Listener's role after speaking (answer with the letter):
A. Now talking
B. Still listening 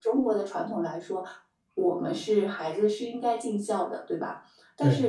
B